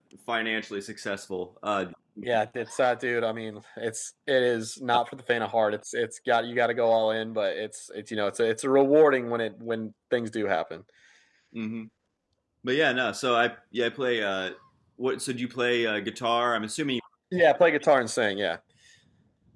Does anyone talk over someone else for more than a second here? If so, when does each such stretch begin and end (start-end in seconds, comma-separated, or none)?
none